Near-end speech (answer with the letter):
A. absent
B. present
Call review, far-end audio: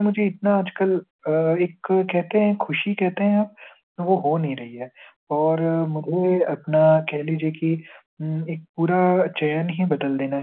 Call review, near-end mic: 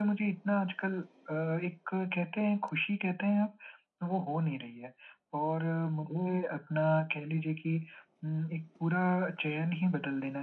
A